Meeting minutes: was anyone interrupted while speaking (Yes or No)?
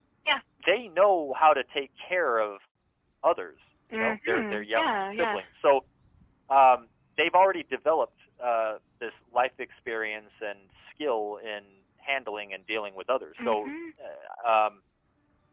Yes